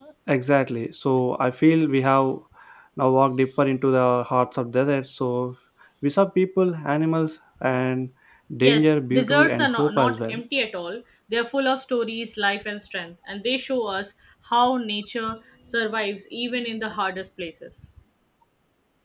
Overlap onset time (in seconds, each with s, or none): 8.6 s